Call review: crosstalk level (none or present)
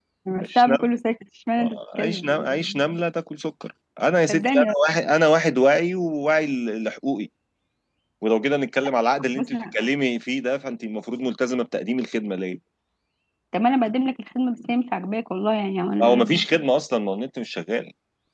present